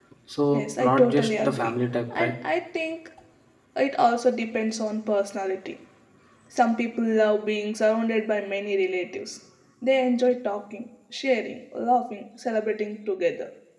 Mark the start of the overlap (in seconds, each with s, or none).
0.5 s